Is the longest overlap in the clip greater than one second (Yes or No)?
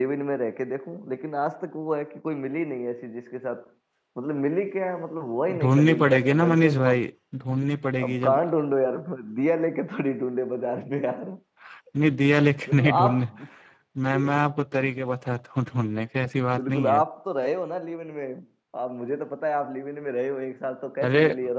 Yes